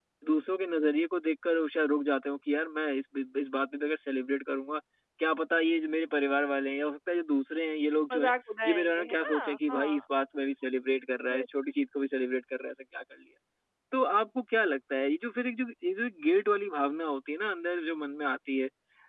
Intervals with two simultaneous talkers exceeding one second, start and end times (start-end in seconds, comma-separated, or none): 8.7-10.0